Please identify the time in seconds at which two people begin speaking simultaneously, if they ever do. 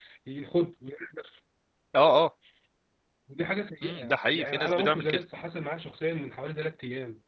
3.8 s

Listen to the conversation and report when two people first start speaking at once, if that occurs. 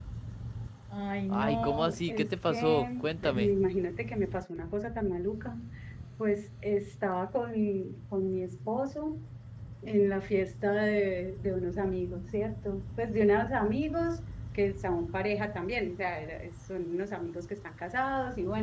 1.3 s

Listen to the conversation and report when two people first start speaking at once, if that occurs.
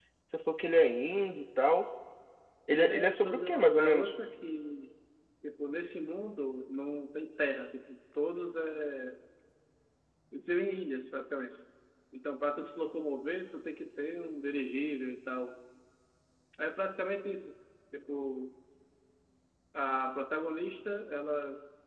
2.7 s

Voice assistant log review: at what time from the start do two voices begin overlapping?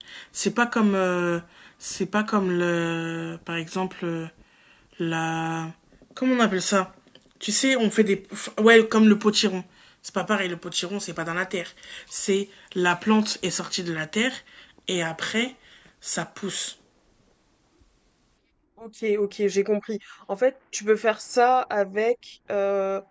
none

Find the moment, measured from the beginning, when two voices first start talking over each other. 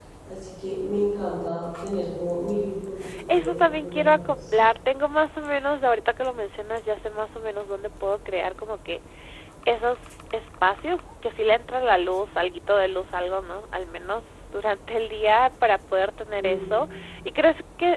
3.3 s

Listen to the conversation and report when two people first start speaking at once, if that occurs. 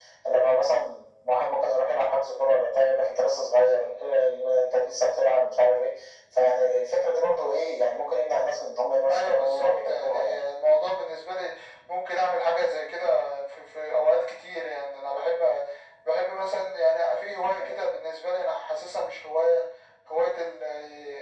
9.1 s

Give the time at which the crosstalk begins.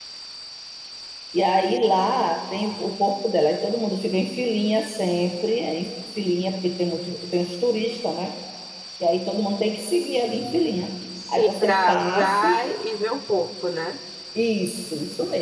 11.3 s

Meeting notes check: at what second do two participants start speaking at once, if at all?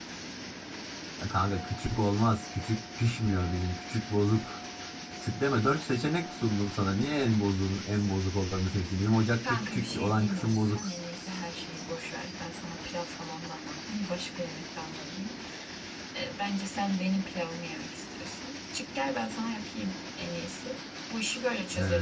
9.4 s

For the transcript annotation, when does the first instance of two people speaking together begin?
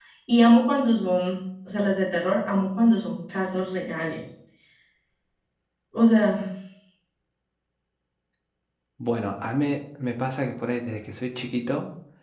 none

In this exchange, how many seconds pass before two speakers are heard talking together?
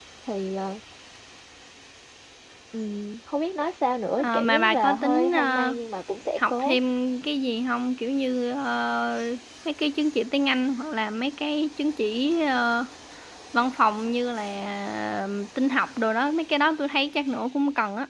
4.2 s

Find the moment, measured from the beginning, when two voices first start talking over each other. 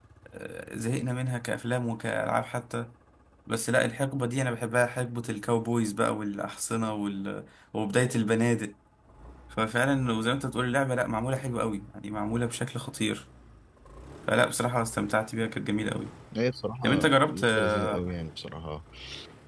16.8 s

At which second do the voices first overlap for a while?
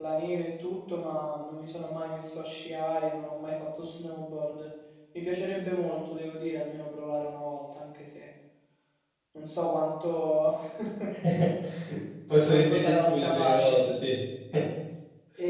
12.5 s

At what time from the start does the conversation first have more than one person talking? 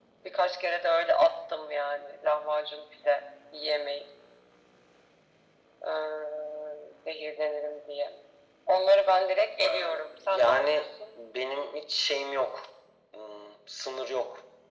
9.6 s

